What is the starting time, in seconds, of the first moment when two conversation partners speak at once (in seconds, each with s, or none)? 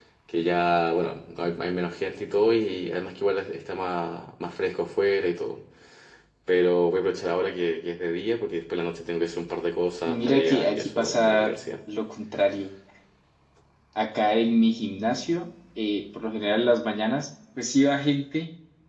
10.1 s